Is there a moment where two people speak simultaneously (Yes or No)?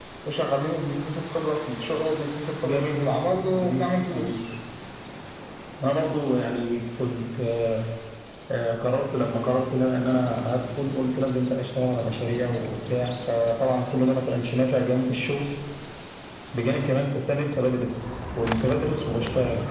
Yes